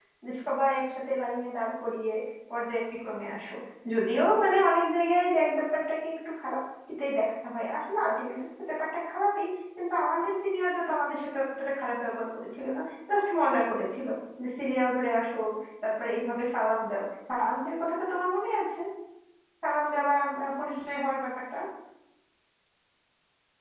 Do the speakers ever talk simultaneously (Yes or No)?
No